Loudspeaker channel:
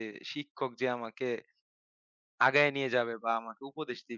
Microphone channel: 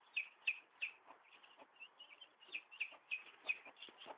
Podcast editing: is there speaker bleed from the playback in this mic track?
No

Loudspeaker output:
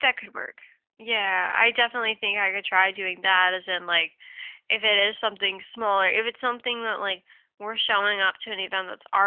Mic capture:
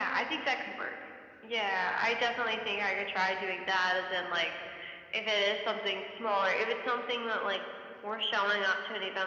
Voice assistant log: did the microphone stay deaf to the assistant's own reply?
No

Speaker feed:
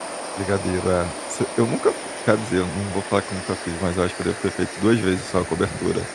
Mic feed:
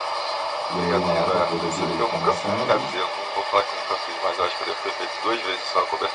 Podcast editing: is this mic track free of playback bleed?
No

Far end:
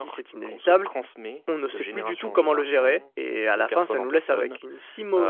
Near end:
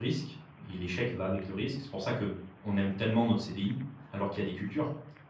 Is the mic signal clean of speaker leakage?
Yes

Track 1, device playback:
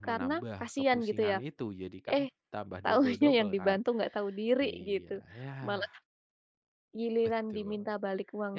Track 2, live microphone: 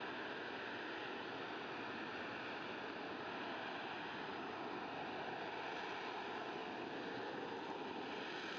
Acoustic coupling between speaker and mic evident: No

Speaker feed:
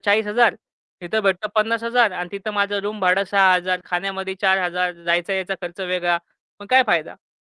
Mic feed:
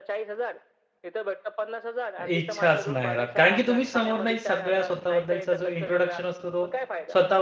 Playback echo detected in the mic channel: Yes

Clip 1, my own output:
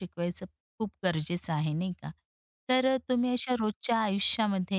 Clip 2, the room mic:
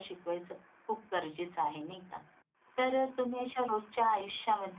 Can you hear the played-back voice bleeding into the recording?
Yes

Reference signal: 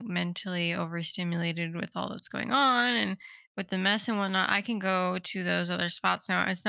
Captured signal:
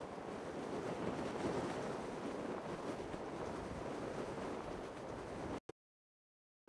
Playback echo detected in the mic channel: No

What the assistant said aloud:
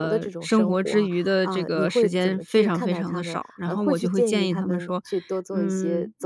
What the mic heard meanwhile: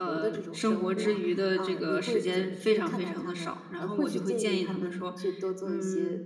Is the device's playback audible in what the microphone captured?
Yes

